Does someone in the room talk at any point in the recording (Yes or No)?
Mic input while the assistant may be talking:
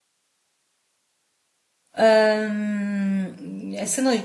Yes